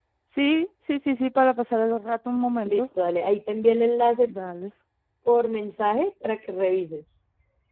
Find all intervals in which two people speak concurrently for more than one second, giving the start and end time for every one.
none

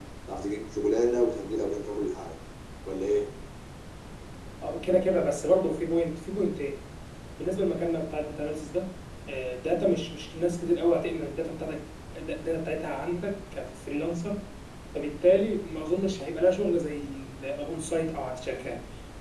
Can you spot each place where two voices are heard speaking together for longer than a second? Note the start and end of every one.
none

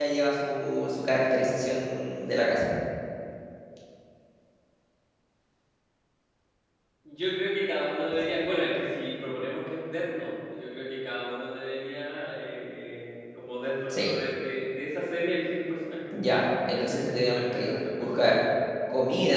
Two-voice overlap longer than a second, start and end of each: 16.7-18.3

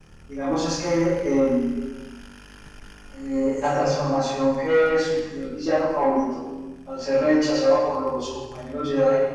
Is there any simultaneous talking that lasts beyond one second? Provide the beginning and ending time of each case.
none

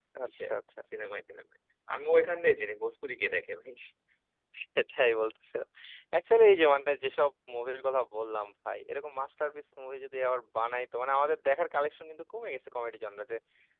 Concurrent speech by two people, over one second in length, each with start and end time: none

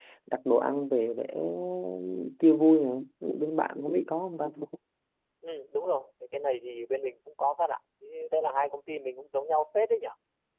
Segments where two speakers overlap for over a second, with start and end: none

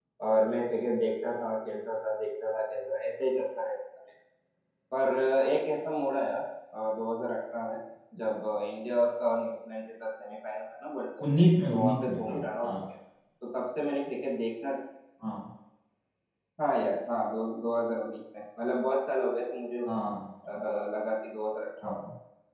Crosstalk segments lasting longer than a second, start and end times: 11.4-12.7

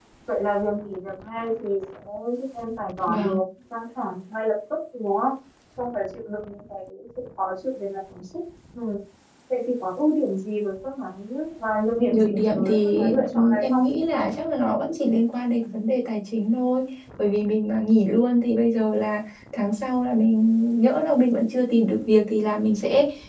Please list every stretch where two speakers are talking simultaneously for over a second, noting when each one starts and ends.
12.1-13.8

